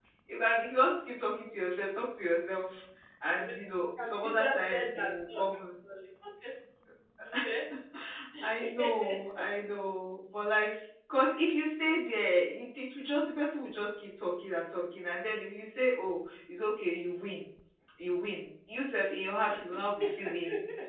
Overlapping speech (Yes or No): Yes